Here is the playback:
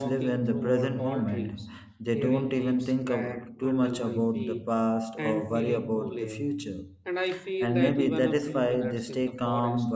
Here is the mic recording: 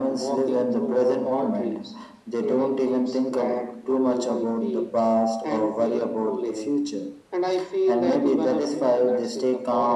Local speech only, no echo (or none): none